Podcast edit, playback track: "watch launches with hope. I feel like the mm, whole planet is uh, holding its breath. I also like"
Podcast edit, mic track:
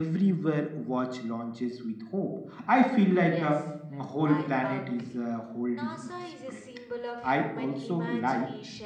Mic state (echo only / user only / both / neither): both